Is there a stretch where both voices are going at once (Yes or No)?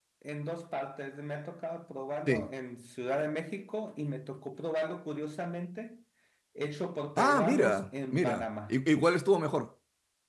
Yes